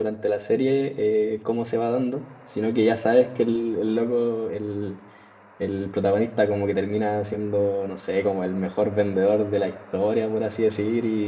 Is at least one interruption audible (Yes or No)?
No